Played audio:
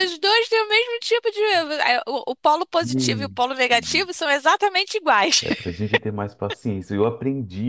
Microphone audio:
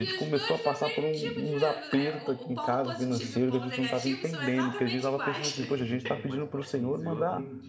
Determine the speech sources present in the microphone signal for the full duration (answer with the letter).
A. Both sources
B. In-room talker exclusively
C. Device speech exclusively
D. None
A